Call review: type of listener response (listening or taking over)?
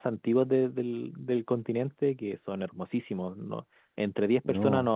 listening